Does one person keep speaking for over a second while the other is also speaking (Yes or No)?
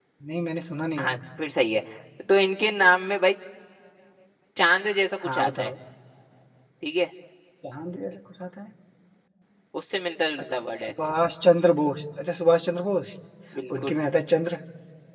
No